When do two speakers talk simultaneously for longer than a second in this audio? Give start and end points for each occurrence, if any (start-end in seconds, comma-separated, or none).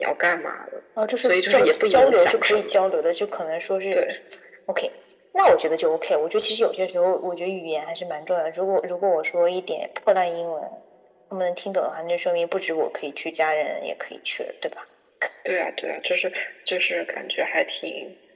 1.2-2.7